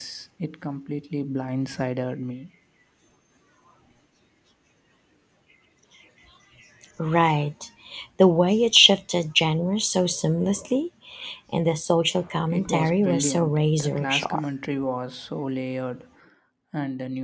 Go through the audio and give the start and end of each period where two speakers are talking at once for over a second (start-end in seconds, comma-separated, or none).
12.5-14.4